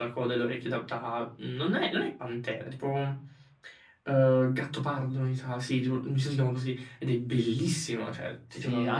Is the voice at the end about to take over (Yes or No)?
Yes